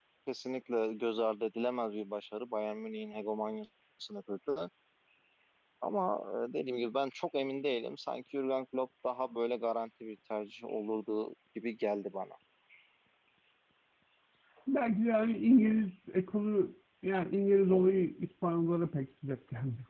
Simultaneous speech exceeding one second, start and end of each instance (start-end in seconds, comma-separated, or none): none